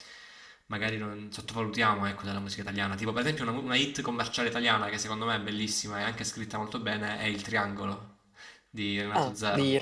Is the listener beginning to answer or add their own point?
Yes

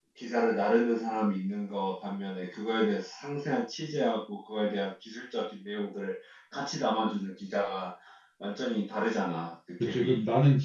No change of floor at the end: No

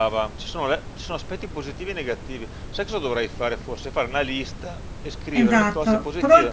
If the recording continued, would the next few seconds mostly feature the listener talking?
Yes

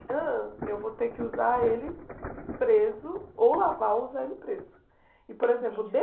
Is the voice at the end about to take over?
No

